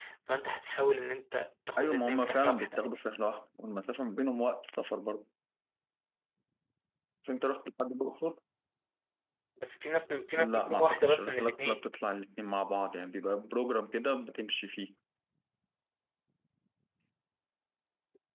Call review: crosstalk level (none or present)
present